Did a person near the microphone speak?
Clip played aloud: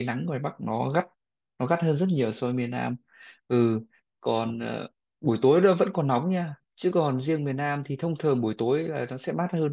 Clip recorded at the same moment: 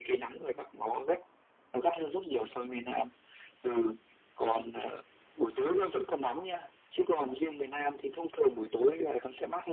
No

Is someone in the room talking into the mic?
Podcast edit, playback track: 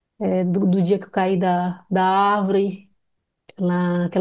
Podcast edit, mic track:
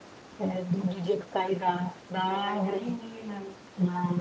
Yes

